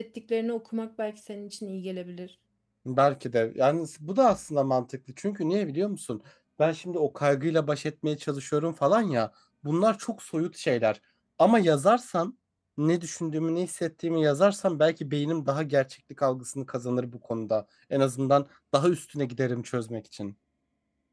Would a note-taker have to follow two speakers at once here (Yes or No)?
No